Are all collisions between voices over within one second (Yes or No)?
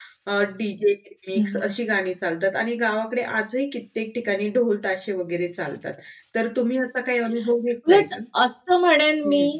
Yes